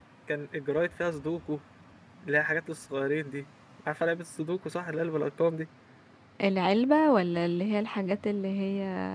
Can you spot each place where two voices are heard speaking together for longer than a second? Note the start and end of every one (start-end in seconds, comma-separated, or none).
none